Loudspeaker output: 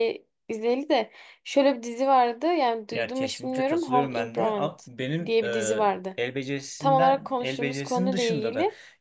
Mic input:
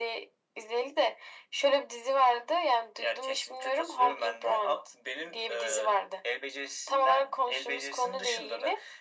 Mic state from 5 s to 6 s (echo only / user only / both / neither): echo only